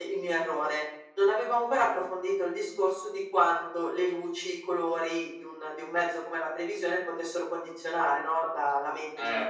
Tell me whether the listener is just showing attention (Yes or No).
No